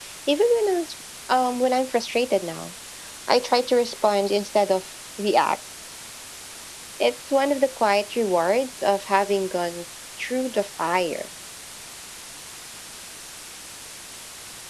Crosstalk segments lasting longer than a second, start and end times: none

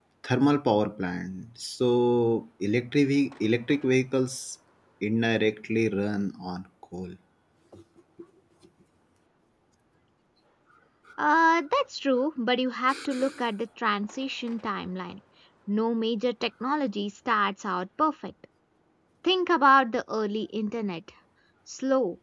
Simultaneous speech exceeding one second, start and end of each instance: none

